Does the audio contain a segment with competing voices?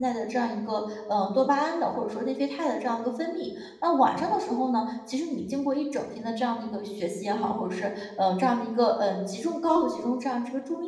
No

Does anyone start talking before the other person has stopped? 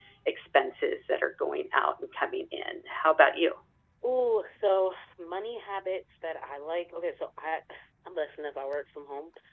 No

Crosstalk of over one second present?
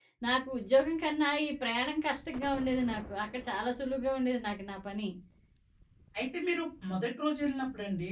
No

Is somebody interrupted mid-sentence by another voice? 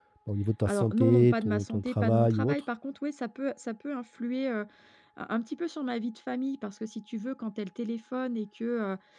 Yes, from 0.6 s

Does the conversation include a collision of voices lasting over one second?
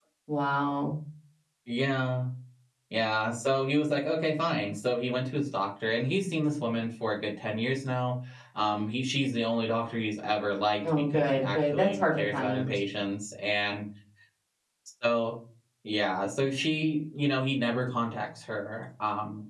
Yes, from 11.1 s

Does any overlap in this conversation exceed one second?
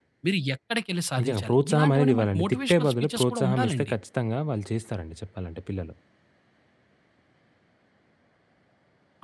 Yes, from 1.2 s

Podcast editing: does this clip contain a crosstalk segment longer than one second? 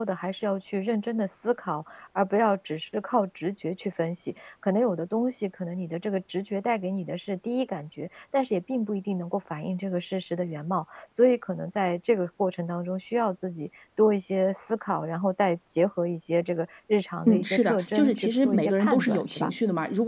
Yes, from 17.3 s

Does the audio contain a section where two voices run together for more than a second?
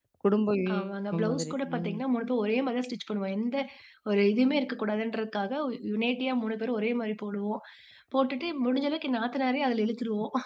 Yes, from 0.7 s

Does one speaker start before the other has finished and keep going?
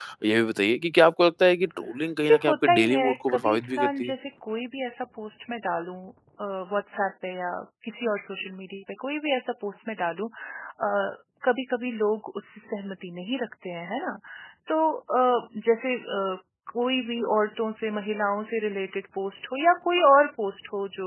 Yes, from 2.2 s

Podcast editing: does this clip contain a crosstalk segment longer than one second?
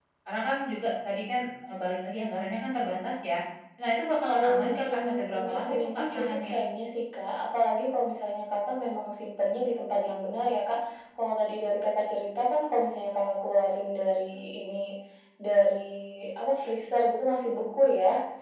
Yes, from 4.3 s

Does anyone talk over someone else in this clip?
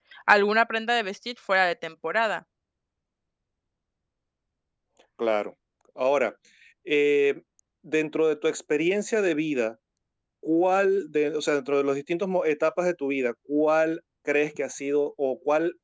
No

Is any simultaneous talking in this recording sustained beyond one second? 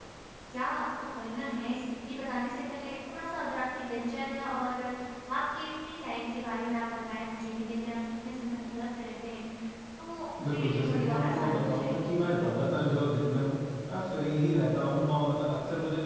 Yes, from 10.4 s

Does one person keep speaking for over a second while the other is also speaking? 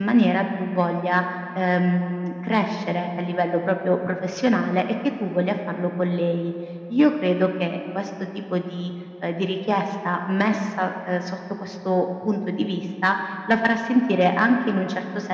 No

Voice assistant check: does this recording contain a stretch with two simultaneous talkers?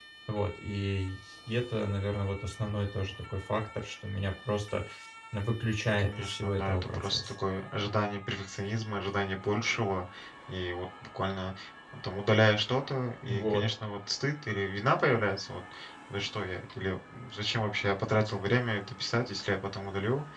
Yes, from 6.0 s

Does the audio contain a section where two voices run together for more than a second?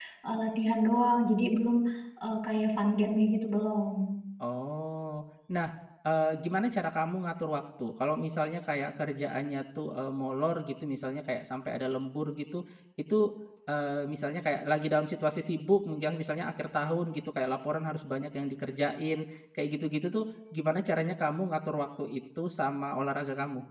No

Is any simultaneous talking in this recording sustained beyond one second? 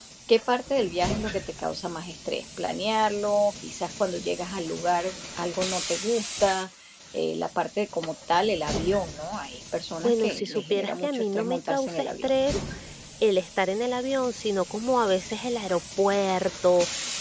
Yes, from 10.0 s

